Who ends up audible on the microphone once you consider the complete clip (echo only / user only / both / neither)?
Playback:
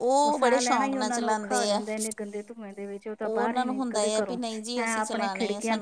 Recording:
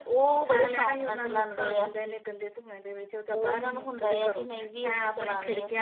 echo only